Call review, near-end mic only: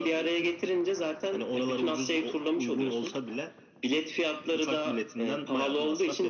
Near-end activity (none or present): none